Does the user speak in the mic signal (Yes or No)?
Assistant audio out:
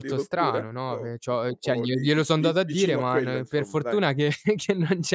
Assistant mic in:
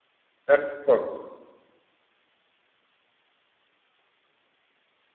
Yes